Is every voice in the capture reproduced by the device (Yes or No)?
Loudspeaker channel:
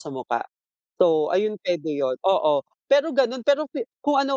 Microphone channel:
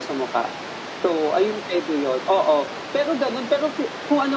Yes